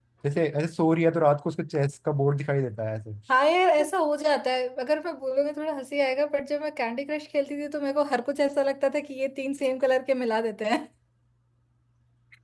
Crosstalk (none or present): none